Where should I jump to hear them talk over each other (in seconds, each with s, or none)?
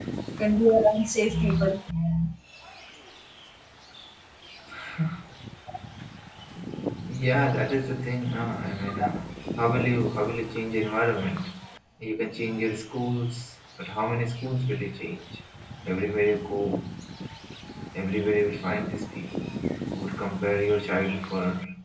none